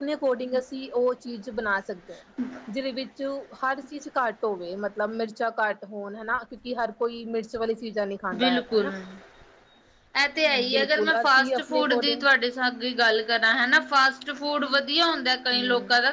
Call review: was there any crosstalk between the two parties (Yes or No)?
Yes